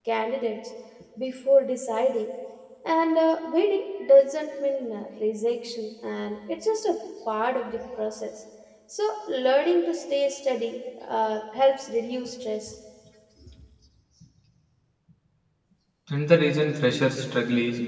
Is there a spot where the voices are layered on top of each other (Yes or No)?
No